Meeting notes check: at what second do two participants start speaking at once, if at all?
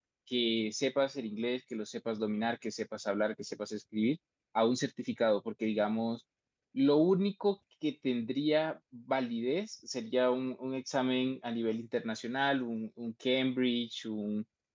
none

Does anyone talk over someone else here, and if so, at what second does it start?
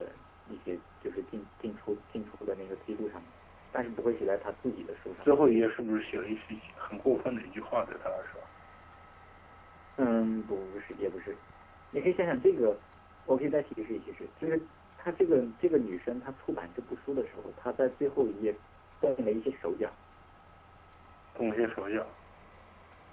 none

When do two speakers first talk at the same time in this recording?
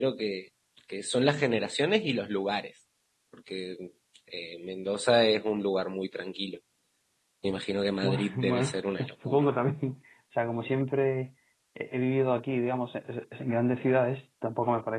8.0 s

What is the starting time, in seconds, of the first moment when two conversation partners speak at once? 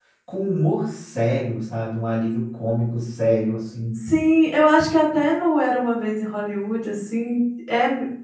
none

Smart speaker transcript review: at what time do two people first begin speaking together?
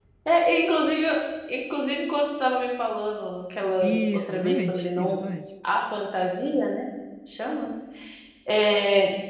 3.8 s

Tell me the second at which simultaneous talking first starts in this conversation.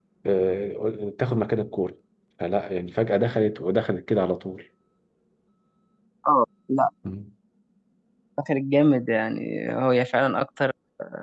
none

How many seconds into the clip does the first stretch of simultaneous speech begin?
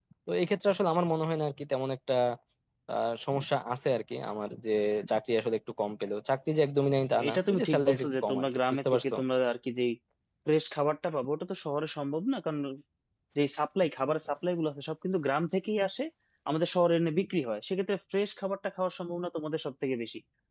7.1 s

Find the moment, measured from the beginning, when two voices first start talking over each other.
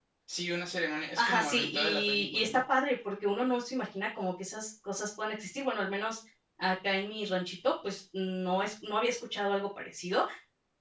1.2 s

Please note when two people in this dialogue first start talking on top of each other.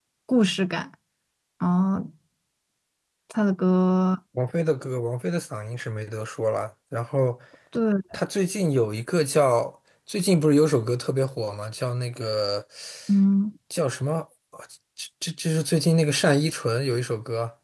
none

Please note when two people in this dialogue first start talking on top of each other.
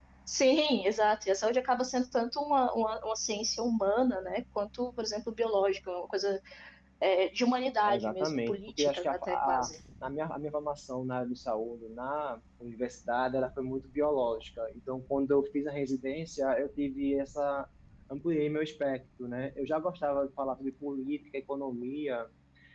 7.9 s

